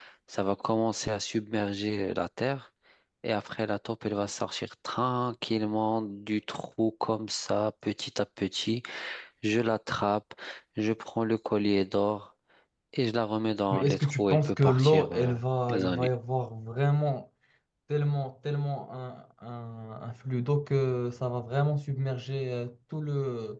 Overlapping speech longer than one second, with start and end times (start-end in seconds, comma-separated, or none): 13.7-15.3